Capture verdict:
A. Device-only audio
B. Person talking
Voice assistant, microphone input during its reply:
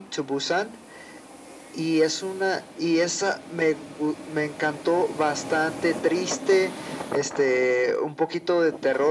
A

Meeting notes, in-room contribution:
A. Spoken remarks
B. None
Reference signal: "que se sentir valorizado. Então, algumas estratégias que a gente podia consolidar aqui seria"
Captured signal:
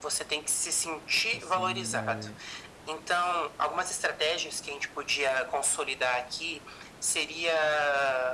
A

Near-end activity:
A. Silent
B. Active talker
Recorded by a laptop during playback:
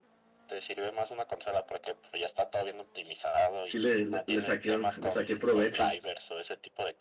B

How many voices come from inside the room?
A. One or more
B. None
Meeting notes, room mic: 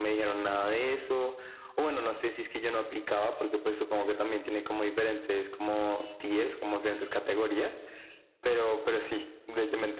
B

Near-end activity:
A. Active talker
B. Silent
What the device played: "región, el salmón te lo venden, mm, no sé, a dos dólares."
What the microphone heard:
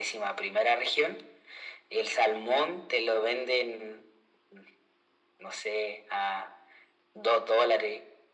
B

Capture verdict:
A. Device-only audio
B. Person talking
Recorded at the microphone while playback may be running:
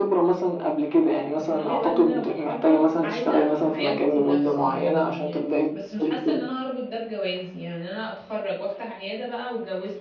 B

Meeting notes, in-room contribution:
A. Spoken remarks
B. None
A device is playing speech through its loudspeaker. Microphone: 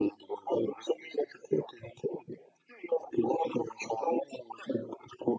B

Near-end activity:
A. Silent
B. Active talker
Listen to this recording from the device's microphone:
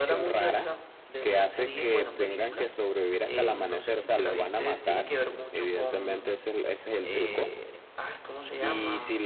B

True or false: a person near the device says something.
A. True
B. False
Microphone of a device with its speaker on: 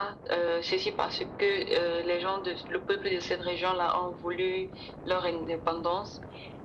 B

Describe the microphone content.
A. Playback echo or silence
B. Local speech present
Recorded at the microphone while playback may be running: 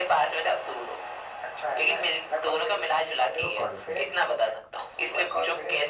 B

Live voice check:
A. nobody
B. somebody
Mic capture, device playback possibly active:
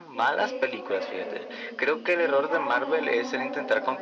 B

